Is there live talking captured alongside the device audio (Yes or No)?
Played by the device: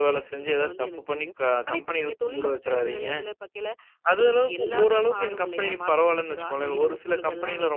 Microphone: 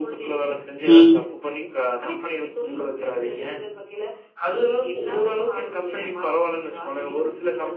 Yes